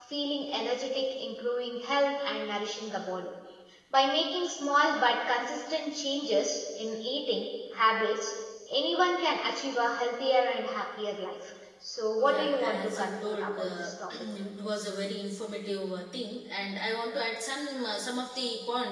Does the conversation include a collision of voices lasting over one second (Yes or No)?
Yes